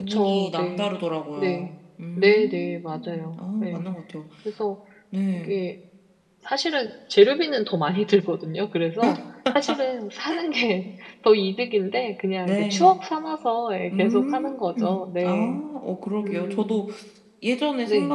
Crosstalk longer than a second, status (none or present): present